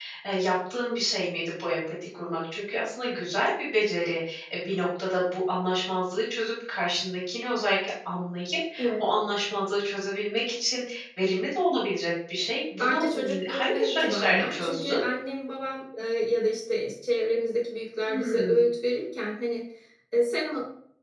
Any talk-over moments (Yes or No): Yes